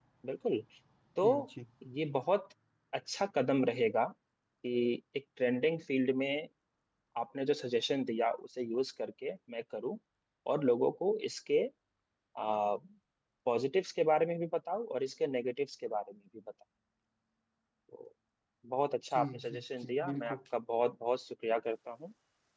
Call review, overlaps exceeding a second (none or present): present